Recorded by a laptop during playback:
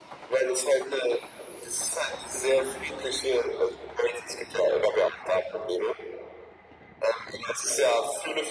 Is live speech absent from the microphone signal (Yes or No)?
Yes